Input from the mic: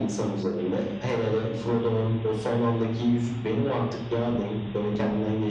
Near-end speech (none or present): none